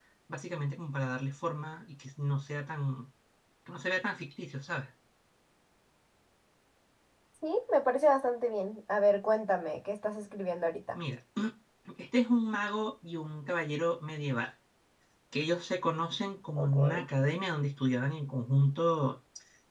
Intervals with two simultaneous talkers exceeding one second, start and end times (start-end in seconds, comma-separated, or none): none